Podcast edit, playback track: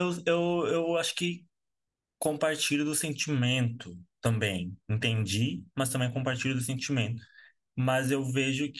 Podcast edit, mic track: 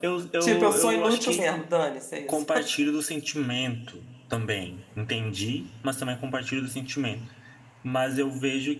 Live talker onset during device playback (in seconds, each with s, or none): 0.4 s